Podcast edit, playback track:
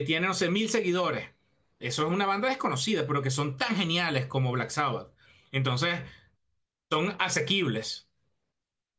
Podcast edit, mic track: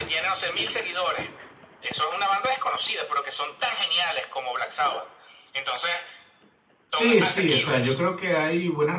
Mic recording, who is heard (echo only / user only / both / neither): both